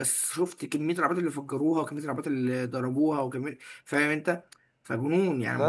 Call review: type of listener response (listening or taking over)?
taking over